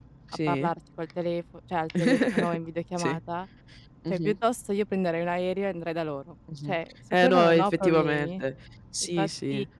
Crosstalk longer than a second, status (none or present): present